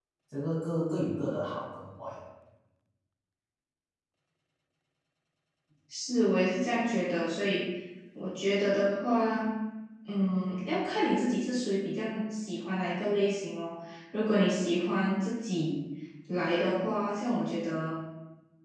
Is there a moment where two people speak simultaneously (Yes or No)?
No